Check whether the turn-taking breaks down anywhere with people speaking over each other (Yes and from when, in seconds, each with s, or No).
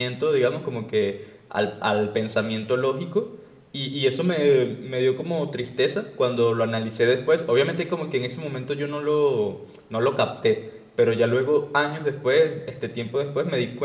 No